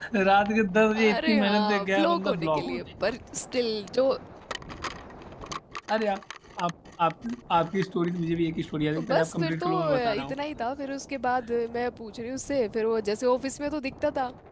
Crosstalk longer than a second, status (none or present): present